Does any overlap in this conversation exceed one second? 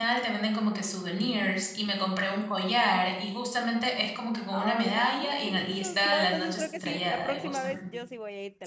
Yes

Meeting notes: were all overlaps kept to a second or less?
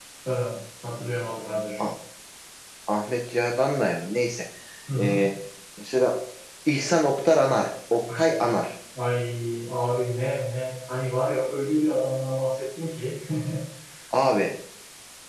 Yes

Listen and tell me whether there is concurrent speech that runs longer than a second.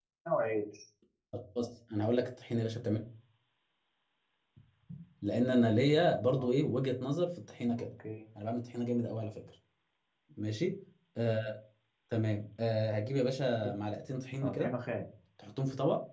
No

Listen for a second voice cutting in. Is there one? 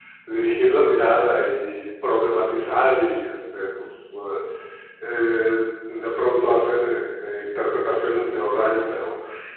No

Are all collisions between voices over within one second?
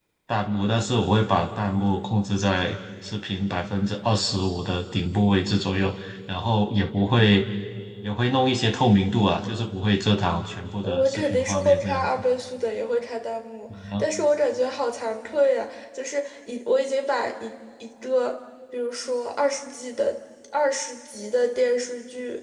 No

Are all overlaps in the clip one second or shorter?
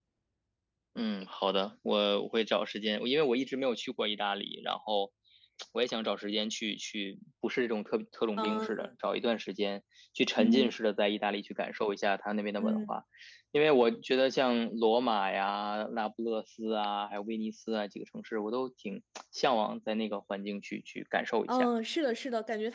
Yes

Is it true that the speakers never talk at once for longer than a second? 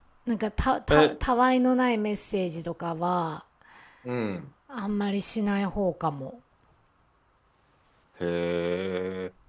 Yes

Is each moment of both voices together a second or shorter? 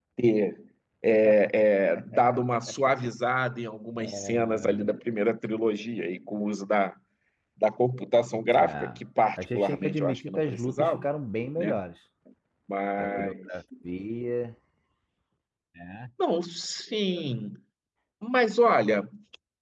No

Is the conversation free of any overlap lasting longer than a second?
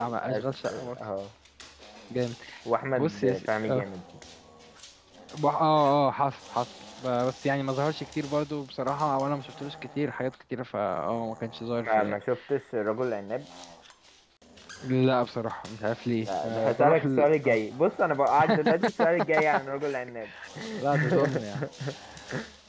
No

